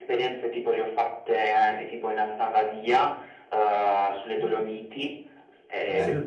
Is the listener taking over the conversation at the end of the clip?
No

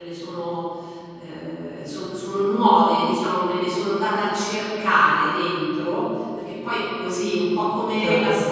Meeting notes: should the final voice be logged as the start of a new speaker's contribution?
No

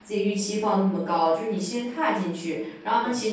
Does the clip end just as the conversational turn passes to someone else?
No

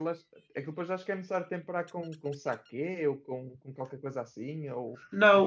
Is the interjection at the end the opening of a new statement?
Yes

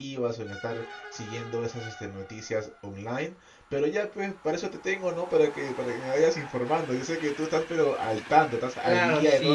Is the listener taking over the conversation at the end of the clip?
Yes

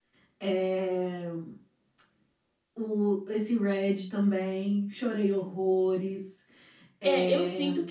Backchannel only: No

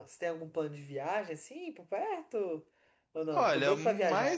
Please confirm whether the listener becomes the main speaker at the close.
Yes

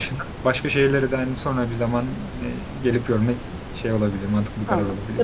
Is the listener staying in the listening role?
No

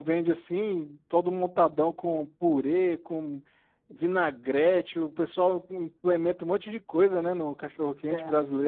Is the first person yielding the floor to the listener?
Yes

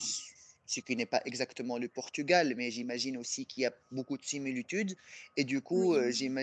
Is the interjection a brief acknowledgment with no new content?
Yes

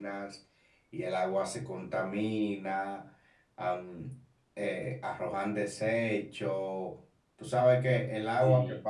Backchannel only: Yes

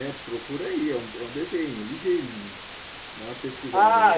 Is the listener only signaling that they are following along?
No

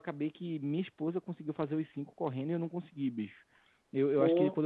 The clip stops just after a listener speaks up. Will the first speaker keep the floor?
Yes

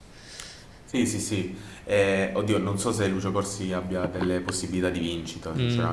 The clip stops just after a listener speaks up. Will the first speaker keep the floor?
No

